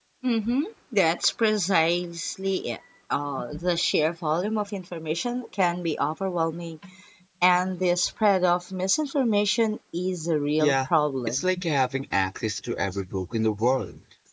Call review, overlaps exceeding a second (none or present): none